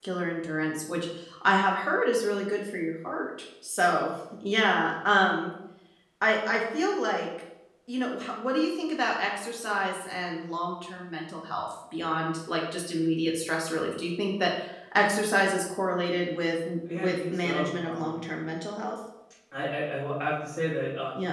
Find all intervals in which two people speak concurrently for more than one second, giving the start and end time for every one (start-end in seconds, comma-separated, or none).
17.0-18.2